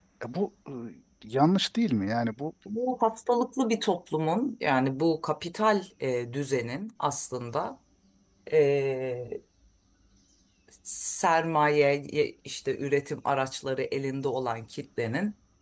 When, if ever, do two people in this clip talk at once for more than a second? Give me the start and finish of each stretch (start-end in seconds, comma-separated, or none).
none